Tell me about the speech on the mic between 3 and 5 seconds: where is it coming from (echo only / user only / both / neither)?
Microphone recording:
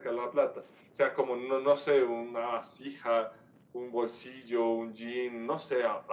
echo only